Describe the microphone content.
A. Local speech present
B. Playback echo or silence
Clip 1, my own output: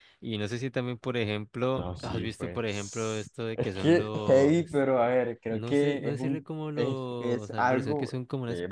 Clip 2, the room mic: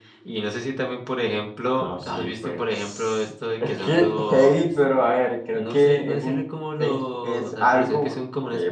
B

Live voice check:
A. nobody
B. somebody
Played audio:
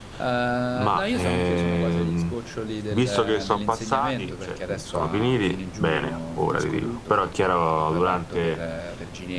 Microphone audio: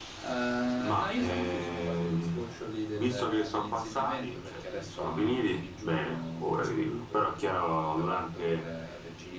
A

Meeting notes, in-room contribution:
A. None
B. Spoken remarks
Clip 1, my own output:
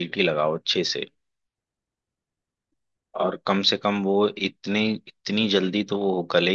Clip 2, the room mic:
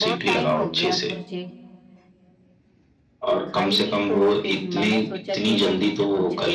B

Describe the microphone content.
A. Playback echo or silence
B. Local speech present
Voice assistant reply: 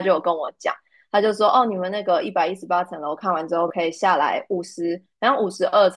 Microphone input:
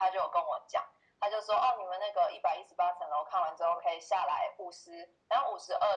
A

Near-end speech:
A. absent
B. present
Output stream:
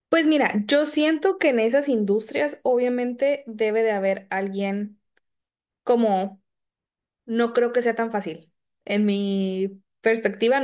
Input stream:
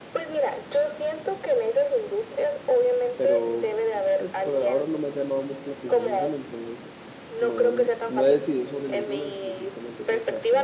B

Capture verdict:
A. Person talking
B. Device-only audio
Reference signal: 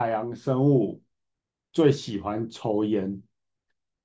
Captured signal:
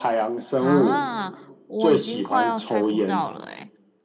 A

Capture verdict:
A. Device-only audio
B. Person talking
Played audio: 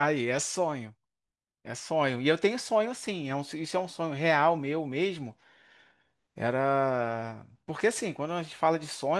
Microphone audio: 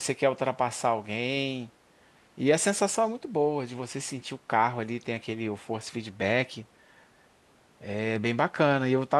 B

